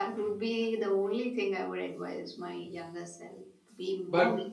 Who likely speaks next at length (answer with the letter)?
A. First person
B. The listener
A